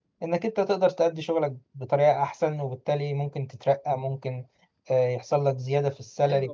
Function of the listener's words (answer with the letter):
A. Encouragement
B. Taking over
B